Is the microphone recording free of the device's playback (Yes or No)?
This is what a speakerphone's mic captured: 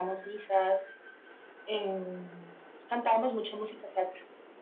No